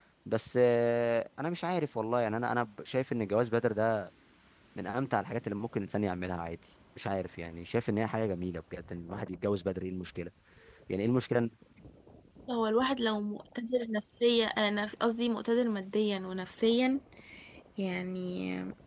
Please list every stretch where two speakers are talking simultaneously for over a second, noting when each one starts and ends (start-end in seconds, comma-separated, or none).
none